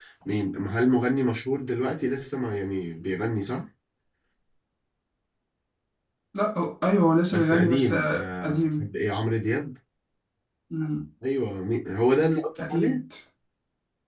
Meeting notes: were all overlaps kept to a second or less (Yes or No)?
No